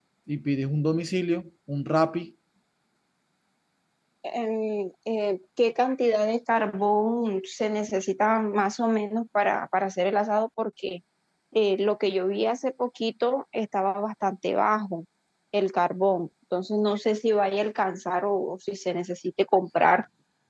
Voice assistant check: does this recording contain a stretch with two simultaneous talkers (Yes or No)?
No